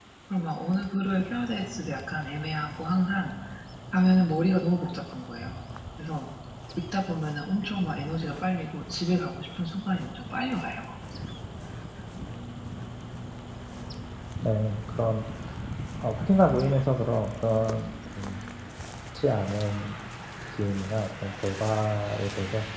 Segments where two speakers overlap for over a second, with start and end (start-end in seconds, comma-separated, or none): none